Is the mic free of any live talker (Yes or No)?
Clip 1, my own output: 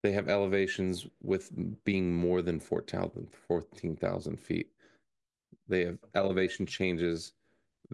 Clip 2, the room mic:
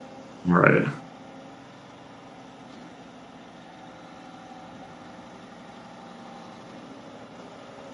No